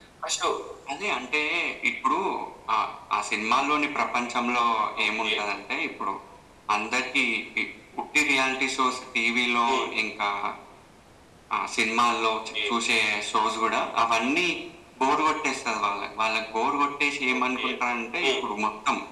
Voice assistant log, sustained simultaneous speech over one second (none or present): none